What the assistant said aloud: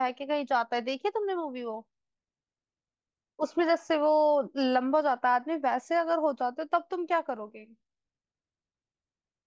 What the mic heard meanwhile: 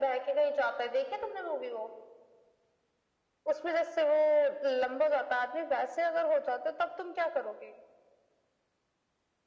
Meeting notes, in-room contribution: none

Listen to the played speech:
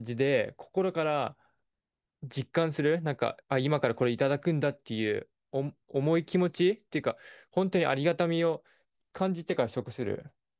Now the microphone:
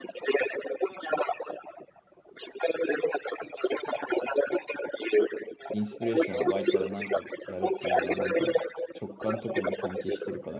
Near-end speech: present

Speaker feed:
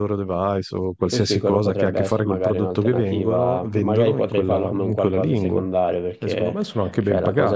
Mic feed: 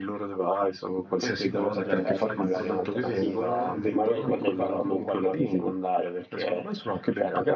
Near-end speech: present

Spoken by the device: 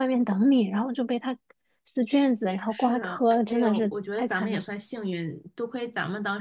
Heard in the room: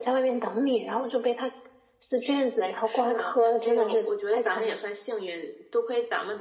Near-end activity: none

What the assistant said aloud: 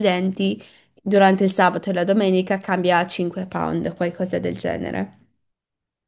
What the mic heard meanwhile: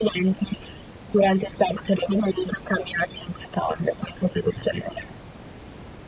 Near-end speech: none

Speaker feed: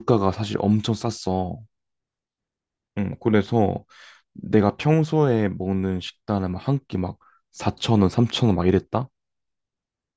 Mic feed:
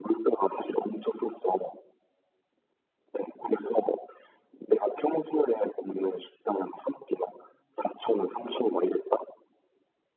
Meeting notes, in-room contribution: none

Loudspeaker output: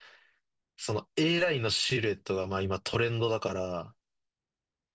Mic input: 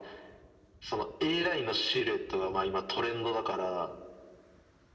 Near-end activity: none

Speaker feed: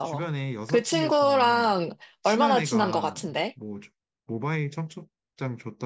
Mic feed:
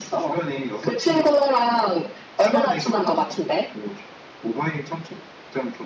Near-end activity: none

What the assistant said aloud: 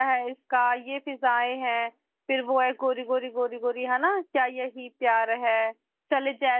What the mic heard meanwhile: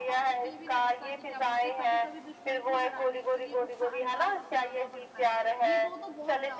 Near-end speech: present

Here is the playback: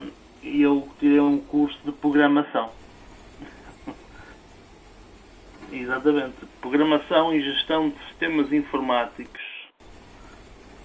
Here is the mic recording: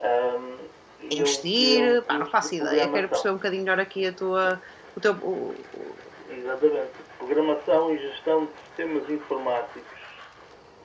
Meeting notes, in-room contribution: present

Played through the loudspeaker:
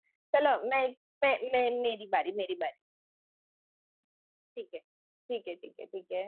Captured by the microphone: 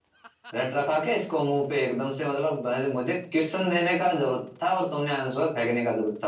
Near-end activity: present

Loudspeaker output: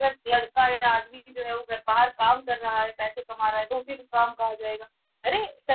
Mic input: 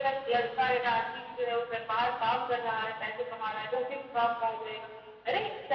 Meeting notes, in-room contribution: none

